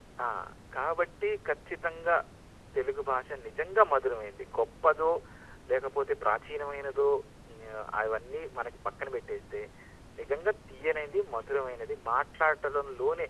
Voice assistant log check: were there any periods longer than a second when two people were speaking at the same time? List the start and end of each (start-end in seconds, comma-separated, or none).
none